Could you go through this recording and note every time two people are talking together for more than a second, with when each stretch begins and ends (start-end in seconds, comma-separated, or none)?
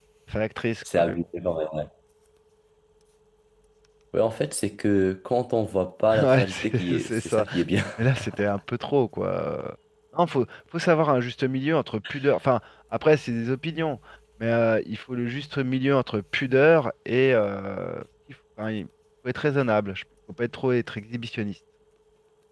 6.2-7.4